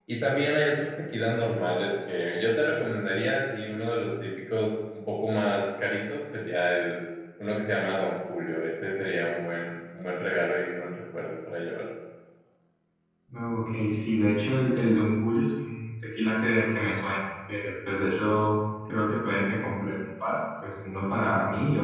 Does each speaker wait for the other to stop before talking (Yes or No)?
Yes